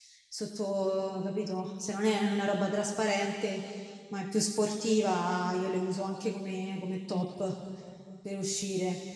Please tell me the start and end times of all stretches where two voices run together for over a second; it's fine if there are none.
none

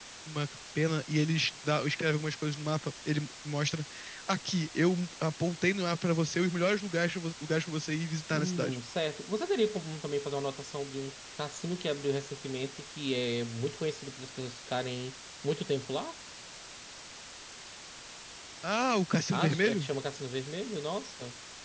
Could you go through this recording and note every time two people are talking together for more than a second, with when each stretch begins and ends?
none

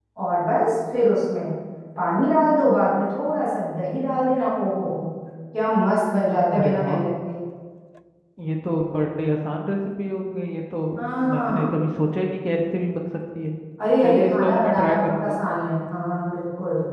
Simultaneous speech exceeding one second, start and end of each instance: 14.0-15.4

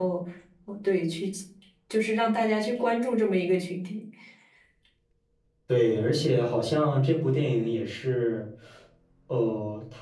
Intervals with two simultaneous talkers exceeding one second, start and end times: none

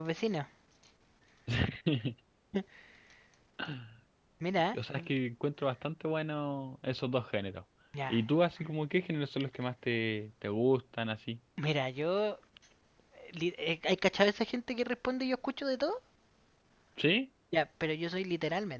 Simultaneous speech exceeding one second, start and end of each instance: none

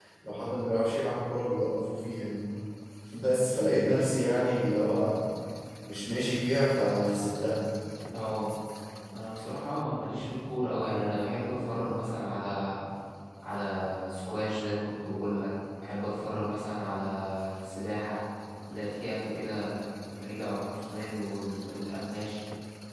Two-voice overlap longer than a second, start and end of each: none

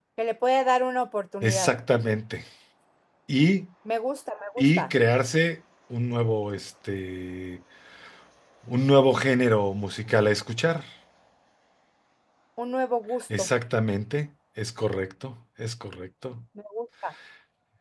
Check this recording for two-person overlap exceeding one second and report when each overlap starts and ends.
none

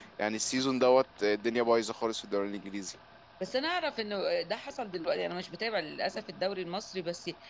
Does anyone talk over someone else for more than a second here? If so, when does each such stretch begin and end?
none

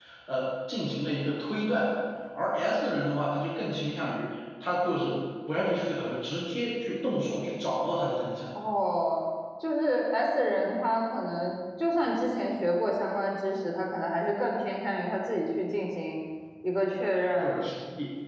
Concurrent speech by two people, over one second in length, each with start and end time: none

